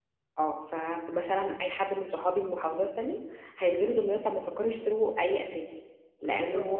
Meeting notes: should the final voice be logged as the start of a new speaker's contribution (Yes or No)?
No